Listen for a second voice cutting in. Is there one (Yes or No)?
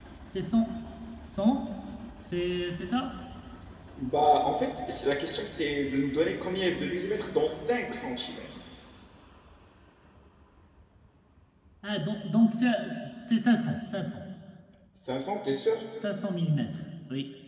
No